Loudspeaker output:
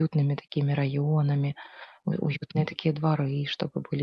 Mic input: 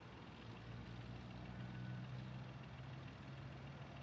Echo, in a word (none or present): none